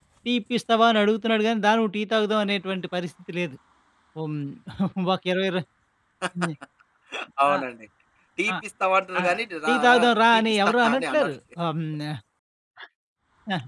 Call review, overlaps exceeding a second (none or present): present